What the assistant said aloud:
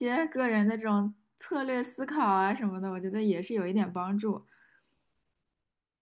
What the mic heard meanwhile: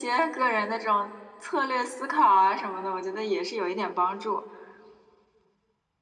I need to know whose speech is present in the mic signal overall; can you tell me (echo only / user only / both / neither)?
echo only